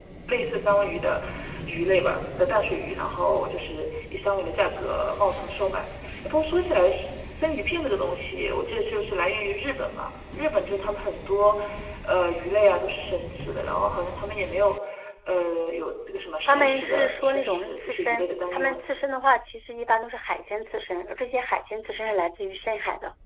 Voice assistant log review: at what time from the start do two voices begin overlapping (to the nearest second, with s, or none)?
16 s